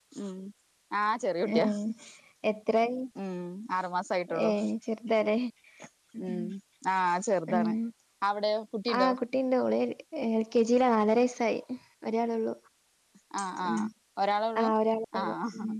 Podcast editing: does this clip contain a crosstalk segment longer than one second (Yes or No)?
No